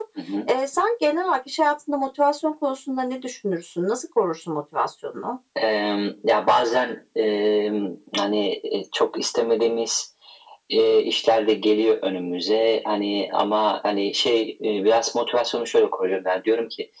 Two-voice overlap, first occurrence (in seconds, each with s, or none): none